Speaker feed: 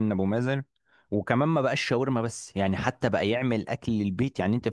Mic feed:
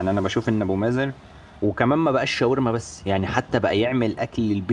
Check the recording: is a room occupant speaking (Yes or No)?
No